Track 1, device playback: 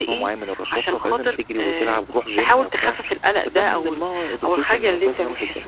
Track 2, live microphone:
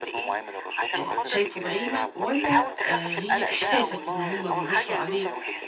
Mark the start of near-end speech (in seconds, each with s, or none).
0.9 s